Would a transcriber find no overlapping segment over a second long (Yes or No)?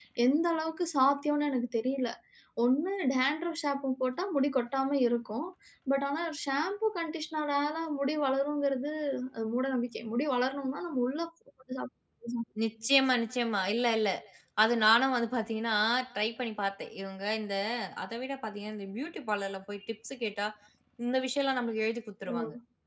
Yes